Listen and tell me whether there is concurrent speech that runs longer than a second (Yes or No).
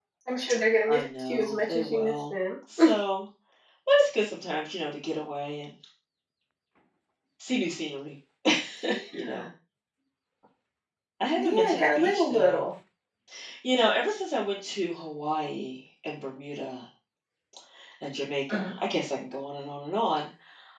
Yes